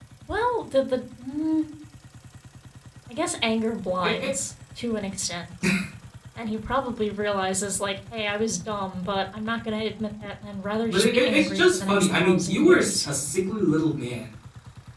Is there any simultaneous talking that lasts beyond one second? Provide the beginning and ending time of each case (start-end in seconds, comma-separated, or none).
10.9-13.1